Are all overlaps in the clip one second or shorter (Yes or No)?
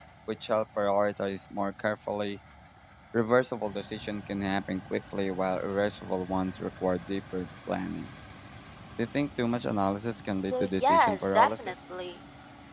No